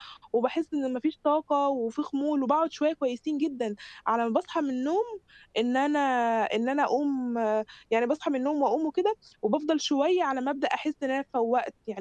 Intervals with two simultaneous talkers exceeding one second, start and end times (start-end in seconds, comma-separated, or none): none